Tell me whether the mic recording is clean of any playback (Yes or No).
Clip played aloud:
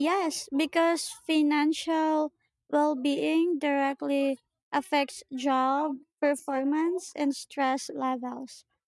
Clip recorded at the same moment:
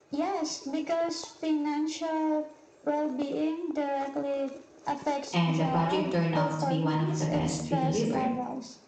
No